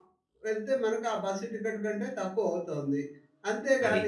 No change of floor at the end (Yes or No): Yes